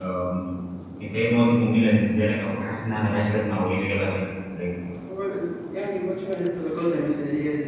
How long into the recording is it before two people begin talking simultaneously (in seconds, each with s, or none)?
none